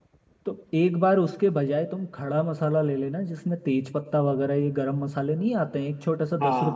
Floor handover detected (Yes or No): Yes